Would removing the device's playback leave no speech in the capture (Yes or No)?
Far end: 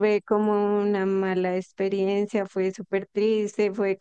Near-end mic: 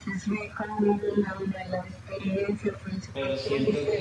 No